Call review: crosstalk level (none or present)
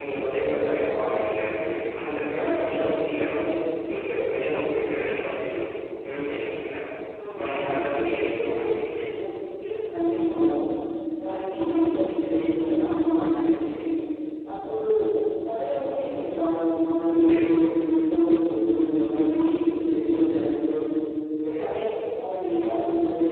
present